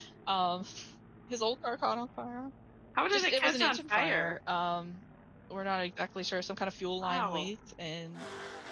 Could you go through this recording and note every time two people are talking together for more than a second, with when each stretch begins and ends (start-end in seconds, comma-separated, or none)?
3.1-4.3